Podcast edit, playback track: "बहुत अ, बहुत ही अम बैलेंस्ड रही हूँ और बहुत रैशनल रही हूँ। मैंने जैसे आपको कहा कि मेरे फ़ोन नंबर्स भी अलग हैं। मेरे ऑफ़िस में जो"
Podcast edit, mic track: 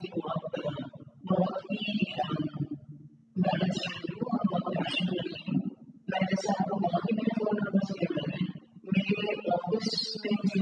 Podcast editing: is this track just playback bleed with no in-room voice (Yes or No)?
Yes